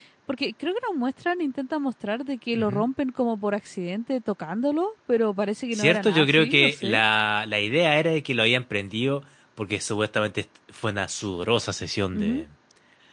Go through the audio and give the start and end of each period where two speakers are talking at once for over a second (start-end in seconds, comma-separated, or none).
5.7-7.0